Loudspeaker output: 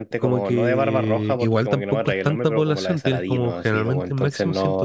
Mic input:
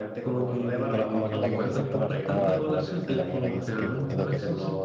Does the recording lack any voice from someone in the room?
No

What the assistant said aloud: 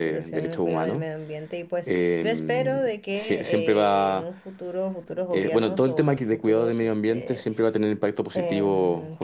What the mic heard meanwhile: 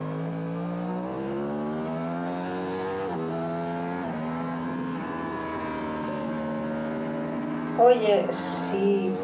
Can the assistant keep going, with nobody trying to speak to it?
No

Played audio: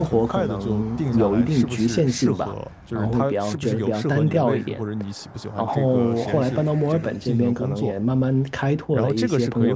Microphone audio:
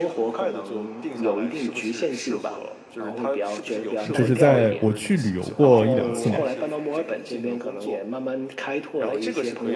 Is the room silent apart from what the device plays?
No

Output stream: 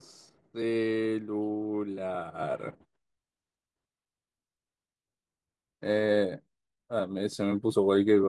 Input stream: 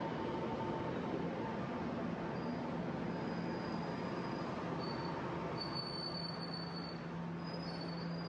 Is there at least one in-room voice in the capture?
No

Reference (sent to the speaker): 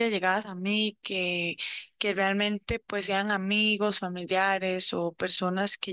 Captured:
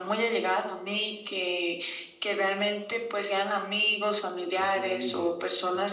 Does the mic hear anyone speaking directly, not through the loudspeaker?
Yes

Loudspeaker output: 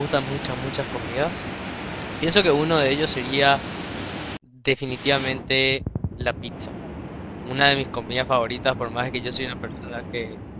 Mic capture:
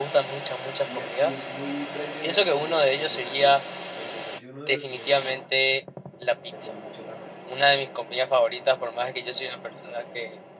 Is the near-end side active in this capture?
Yes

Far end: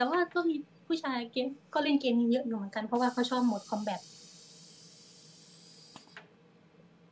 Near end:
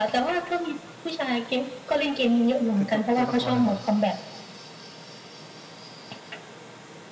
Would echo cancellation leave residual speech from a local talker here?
Yes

